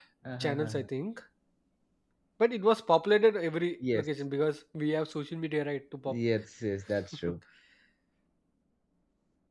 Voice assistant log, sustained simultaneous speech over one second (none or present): none